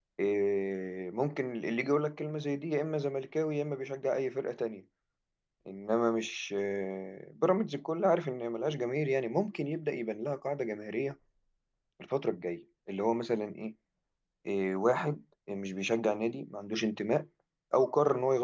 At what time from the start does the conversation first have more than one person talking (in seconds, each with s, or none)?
none